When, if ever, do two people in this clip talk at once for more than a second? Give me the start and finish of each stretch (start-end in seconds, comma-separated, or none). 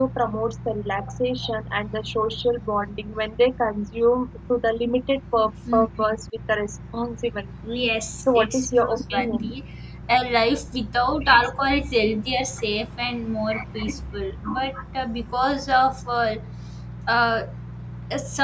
8.2-9.5